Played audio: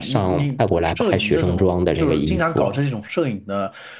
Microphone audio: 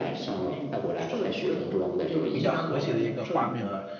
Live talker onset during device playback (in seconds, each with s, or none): 2.3 s